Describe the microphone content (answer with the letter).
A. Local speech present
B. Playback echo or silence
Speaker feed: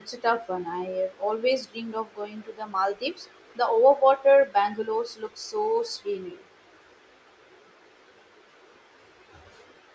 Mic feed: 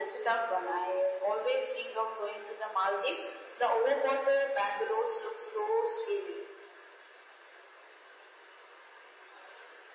B